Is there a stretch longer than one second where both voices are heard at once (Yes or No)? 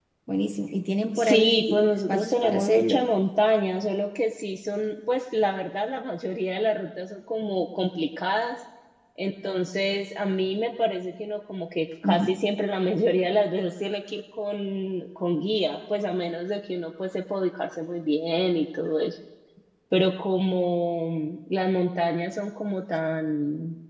Yes